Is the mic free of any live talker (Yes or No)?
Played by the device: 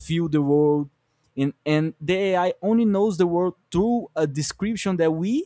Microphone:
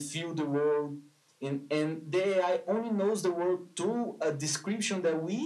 Yes